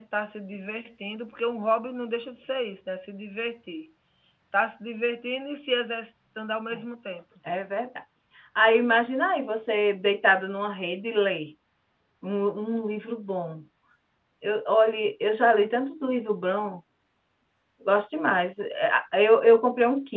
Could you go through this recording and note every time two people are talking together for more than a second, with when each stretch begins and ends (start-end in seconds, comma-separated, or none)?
none